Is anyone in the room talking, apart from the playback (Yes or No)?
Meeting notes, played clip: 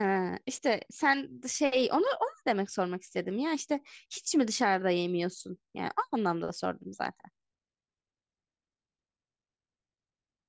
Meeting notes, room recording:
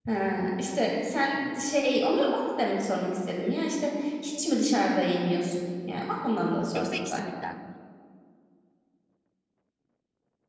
Yes